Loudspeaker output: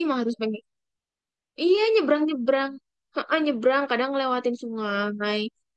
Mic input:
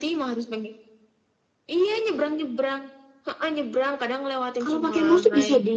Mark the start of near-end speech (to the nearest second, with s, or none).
5 s